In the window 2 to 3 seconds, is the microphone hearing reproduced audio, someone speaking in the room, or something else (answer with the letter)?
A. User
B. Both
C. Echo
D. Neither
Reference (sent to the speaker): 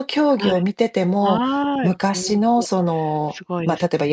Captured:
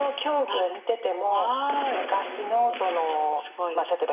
C